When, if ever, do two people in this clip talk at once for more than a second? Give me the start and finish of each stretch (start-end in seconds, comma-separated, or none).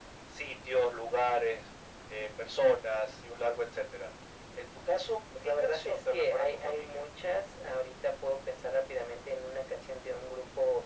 5.4-7.0